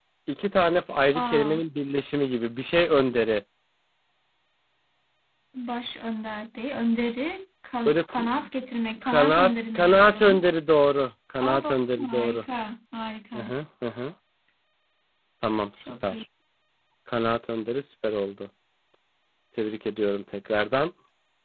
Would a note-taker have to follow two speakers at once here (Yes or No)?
Yes